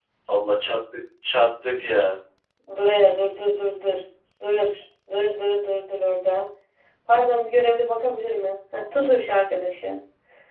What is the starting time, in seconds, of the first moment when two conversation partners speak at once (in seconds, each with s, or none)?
none